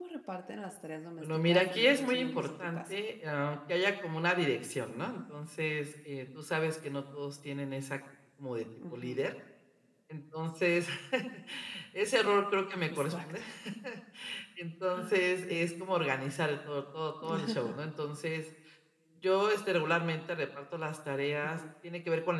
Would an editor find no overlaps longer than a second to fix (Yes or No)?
No